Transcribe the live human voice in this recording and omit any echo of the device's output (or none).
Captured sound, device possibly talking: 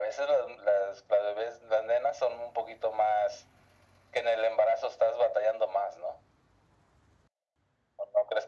none